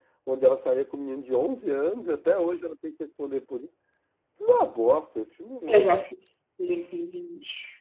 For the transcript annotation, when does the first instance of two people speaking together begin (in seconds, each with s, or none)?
none